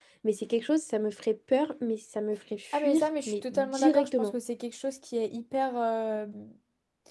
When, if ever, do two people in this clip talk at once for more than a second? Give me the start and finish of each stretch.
2.7-4.3

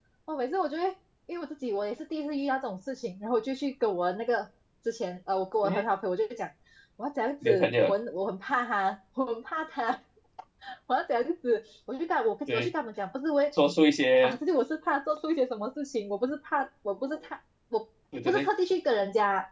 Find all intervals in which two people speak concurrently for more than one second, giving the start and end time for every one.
none

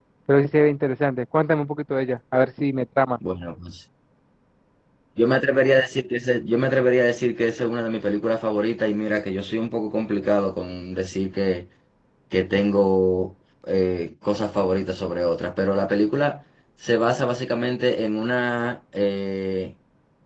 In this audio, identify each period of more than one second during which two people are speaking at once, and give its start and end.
none

